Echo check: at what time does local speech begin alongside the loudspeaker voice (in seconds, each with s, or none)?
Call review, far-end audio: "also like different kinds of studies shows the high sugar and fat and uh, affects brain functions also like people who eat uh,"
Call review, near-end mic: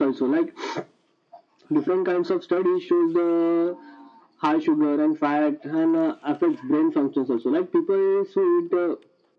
none